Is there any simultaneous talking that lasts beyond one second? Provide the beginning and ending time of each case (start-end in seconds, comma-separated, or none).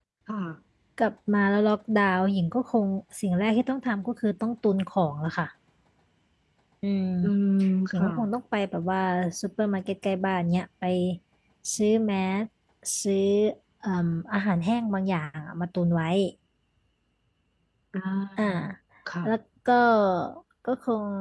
none